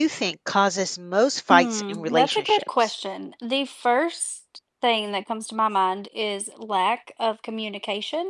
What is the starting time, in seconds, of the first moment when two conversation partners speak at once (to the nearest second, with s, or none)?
2 s